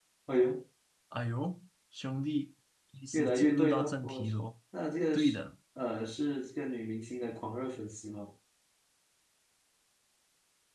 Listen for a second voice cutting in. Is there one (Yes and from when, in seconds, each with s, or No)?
Yes, from 3.1 s